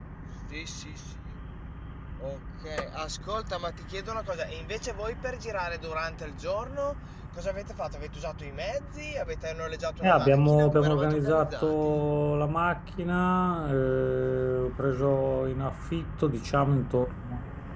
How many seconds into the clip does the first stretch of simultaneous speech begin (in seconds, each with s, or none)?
10.0 s